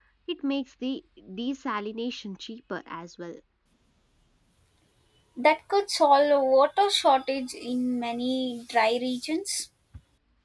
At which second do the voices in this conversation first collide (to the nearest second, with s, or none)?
none